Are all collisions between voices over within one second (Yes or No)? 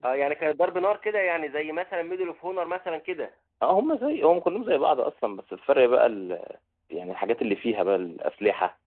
Yes